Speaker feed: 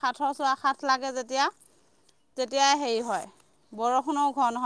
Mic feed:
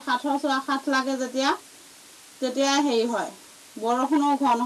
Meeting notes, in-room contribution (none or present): none